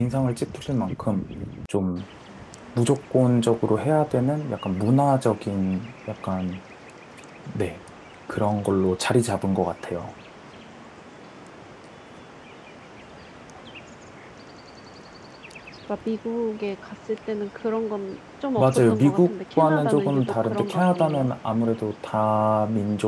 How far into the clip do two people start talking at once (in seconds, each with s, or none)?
18.6 s